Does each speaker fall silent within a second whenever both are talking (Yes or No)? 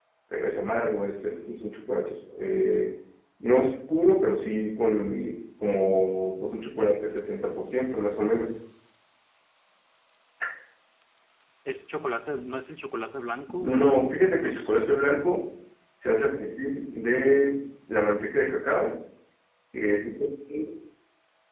No